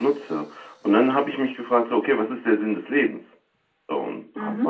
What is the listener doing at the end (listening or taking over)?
listening